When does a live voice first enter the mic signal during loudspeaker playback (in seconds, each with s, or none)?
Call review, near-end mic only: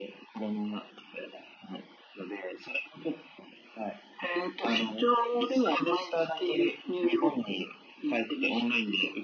none